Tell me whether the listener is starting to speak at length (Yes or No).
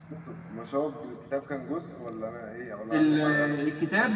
Yes